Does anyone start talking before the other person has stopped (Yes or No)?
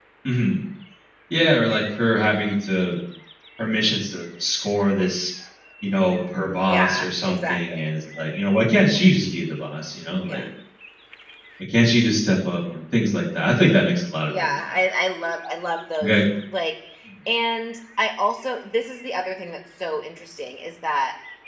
Yes